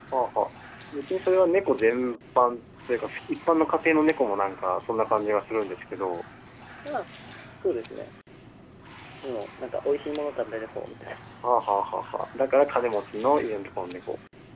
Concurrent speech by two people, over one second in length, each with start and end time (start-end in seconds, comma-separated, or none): none